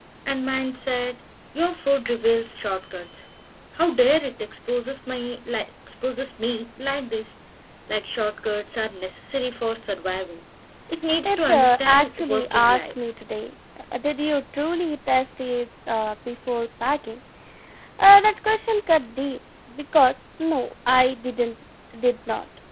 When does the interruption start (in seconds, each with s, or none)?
11.2 s